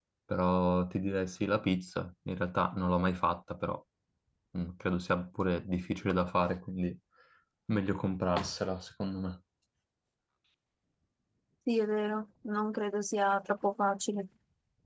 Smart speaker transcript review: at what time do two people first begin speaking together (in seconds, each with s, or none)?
none